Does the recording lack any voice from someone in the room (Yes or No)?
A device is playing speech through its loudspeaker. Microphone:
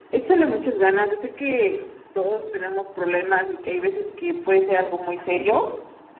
Yes